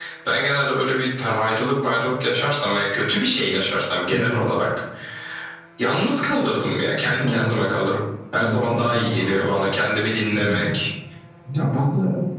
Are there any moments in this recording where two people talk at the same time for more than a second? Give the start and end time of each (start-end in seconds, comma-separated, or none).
8.4-9.6